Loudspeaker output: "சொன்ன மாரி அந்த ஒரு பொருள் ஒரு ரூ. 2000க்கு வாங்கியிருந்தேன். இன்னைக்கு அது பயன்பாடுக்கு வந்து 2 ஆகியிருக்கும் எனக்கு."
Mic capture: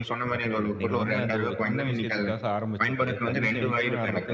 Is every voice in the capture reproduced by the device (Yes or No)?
No